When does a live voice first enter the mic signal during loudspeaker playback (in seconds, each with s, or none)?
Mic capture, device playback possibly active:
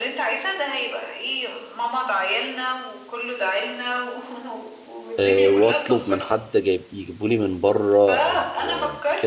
5.2 s